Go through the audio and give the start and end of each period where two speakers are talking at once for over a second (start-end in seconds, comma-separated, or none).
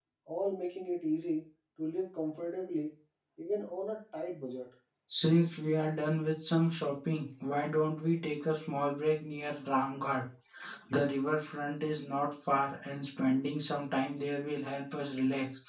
none